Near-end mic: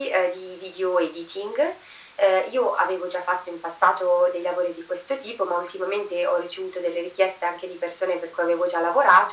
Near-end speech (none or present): none